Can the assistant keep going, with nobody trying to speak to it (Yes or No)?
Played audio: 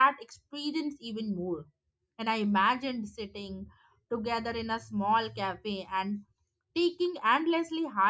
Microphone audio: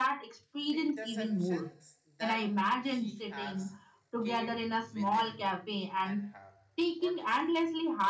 No